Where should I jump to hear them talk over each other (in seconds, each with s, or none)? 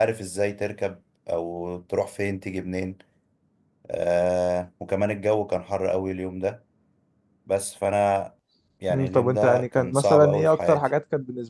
8.9 s